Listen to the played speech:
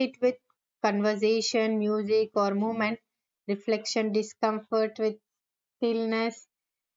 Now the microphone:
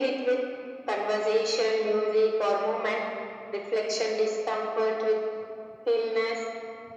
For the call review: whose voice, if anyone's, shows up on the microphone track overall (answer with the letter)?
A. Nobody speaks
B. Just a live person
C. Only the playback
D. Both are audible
C